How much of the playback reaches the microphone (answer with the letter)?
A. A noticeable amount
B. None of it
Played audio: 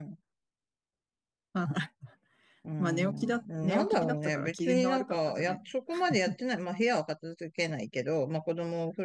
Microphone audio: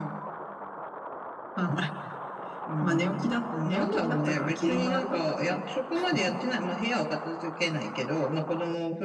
A